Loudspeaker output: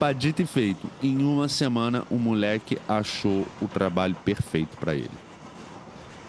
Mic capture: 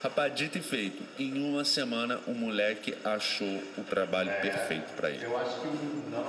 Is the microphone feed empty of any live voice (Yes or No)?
No